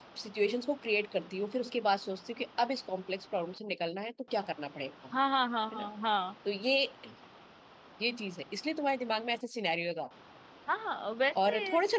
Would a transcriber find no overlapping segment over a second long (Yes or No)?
Yes